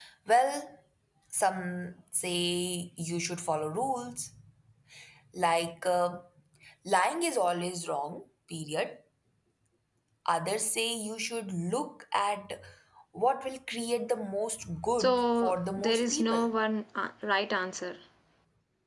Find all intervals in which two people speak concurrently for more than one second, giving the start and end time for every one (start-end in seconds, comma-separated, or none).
15.0-16.5